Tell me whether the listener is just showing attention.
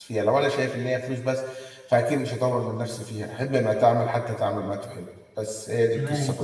No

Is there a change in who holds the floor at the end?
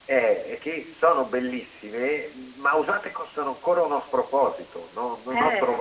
No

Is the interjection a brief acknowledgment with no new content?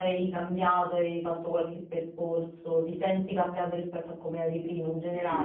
No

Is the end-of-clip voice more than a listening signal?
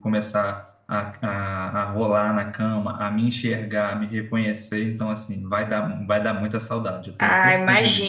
Yes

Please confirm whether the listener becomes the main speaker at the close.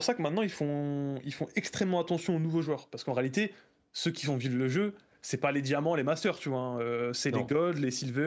No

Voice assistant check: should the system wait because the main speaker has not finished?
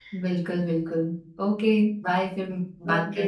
No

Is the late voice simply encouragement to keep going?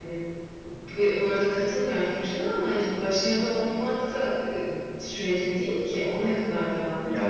Yes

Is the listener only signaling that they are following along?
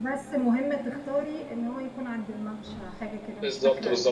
No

